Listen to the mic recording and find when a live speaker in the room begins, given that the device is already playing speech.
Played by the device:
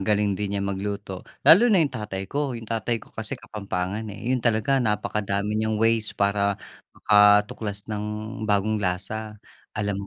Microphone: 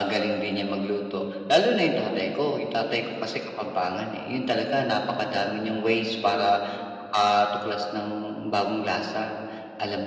none

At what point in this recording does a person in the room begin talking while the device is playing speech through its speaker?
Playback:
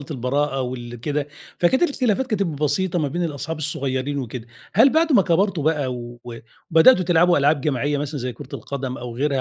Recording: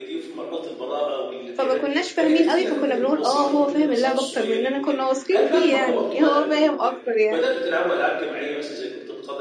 1.5 s

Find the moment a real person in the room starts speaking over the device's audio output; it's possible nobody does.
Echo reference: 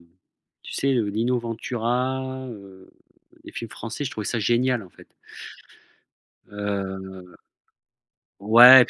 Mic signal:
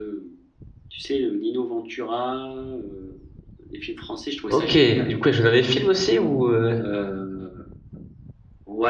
4.5 s

